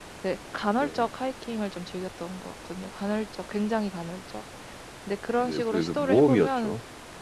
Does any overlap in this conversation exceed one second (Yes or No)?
Yes